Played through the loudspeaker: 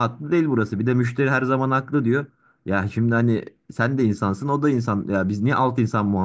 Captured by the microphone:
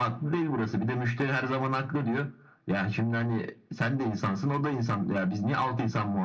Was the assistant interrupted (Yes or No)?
No